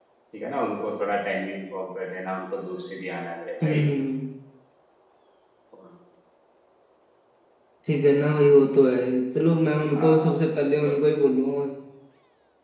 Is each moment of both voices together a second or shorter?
Yes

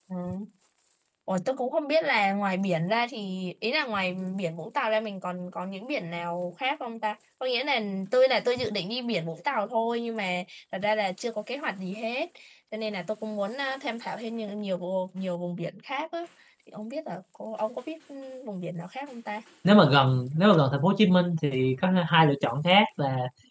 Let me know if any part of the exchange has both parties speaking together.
No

